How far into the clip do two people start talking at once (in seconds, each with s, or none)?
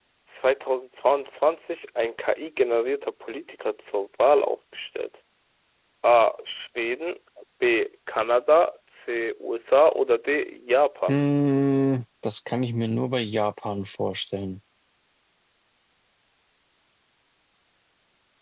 none